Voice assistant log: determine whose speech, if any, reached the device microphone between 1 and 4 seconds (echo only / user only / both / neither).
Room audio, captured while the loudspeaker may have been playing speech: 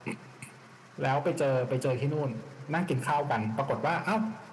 echo only